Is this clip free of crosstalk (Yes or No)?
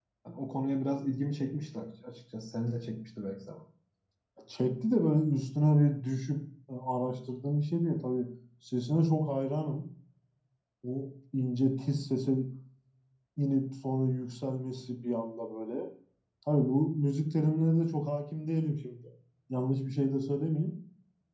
Yes